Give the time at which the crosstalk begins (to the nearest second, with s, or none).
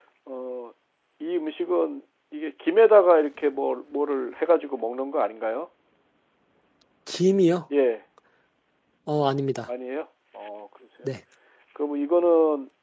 none